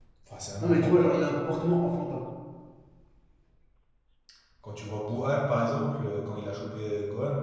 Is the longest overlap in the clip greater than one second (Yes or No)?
No